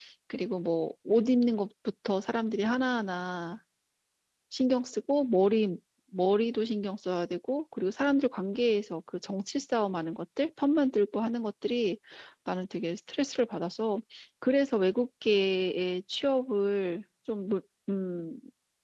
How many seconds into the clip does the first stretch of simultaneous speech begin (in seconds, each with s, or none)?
none